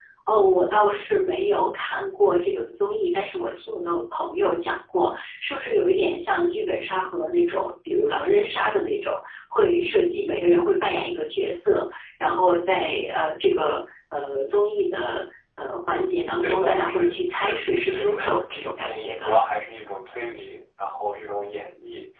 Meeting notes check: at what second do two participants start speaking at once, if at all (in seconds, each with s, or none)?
16.4 s